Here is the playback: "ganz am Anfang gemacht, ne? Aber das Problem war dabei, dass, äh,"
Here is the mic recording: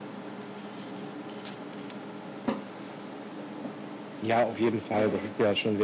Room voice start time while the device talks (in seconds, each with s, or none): 4.2 s